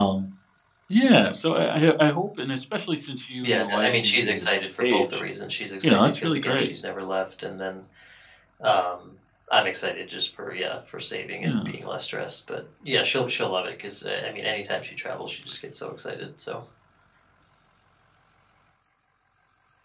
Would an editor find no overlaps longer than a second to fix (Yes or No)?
No